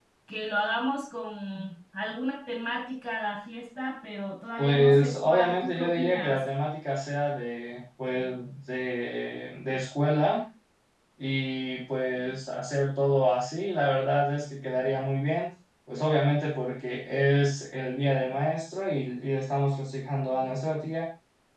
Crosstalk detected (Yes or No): Yes